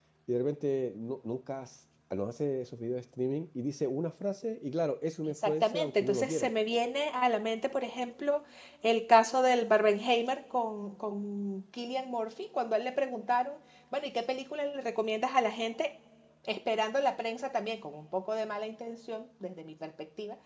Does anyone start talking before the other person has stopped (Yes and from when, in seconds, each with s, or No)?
Yes, from 5.3 s